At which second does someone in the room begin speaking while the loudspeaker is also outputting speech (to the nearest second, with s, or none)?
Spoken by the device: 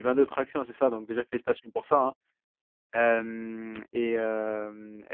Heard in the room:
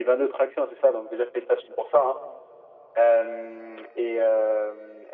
none